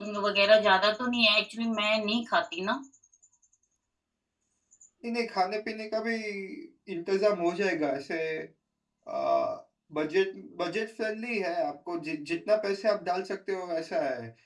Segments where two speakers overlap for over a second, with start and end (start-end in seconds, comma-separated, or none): none